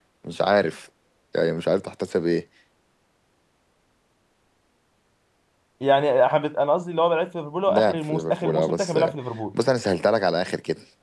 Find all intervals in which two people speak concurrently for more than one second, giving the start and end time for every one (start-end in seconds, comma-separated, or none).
7.7-9.0